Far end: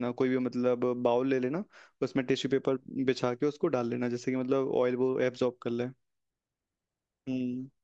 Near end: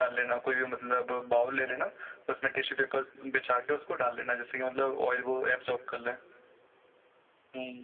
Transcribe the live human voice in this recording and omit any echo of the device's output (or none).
none